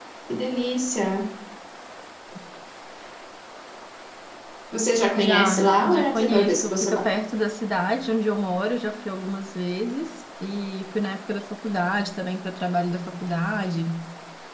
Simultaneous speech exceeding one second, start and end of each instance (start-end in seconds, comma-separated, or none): 5.2-7.1